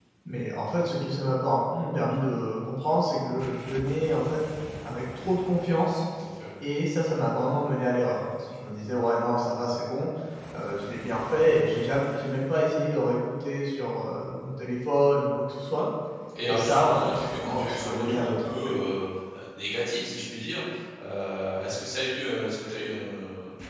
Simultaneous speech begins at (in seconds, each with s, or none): 16.4 s